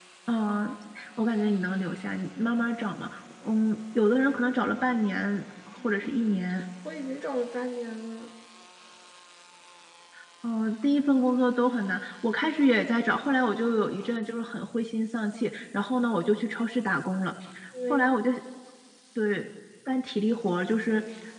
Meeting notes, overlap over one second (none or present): none